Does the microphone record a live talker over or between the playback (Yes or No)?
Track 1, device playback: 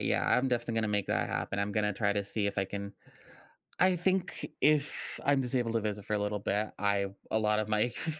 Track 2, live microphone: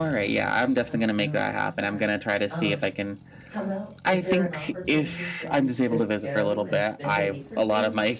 Yes